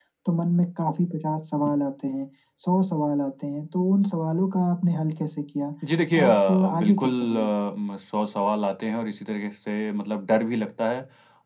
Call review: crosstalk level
present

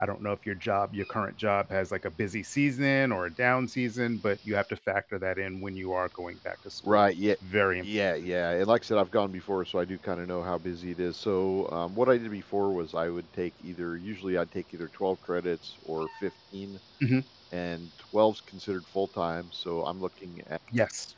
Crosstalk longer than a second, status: none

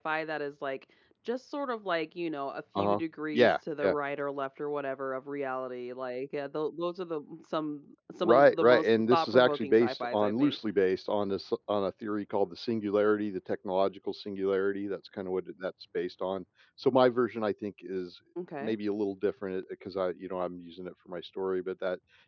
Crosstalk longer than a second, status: present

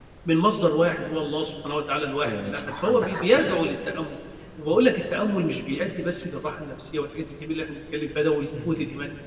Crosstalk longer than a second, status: present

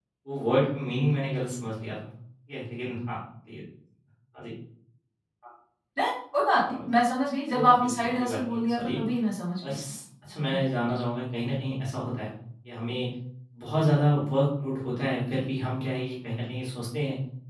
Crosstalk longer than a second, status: present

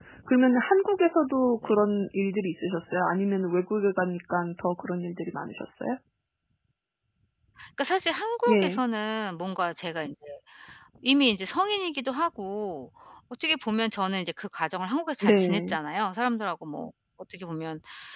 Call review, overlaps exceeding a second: none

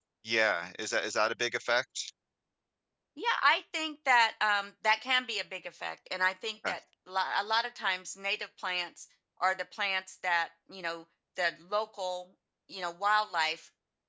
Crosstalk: none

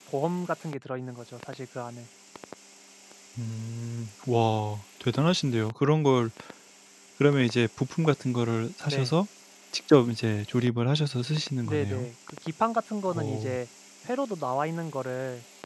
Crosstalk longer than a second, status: none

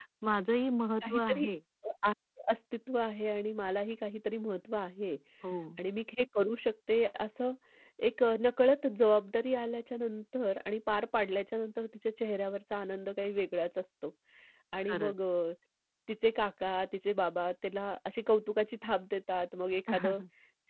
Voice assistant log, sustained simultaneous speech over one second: none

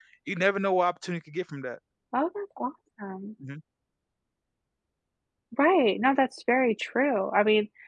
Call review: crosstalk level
none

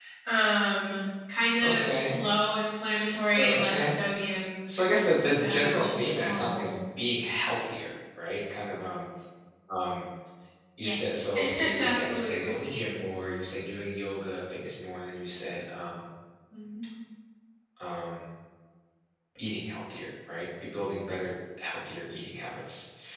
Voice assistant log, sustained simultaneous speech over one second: present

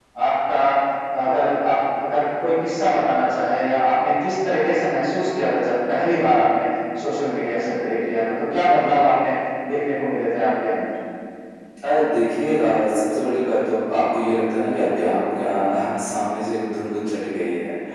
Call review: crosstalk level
none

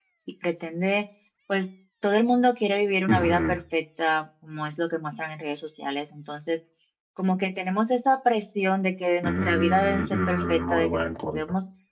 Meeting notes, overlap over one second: present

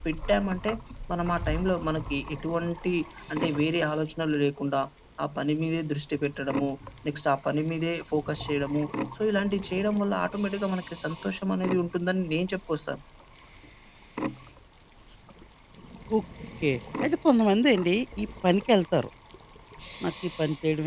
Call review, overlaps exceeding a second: none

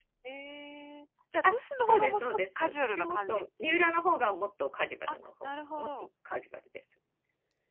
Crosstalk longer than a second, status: present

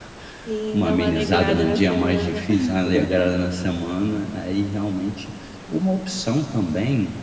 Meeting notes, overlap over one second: present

